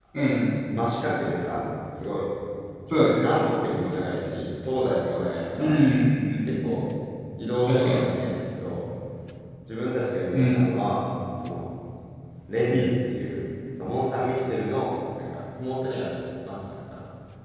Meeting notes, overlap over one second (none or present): none